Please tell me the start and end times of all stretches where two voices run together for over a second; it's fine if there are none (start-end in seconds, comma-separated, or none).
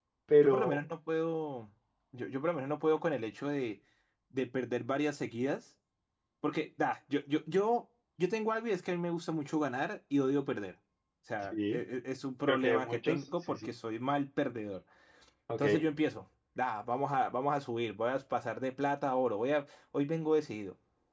12.5-13.7